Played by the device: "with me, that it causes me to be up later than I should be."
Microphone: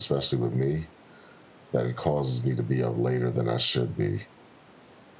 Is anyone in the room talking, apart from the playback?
No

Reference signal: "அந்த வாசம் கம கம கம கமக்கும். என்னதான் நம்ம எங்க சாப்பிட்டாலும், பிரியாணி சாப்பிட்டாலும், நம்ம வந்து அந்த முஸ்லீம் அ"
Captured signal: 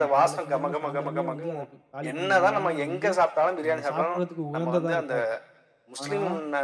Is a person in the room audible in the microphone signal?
Yes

